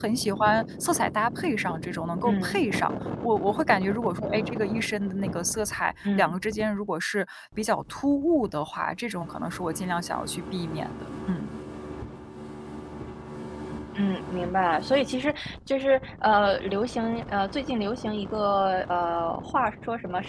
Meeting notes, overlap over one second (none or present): none